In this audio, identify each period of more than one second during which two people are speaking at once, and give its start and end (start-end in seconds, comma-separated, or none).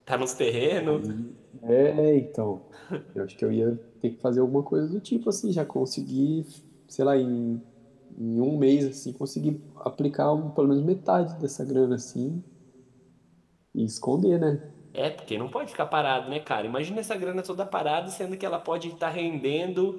none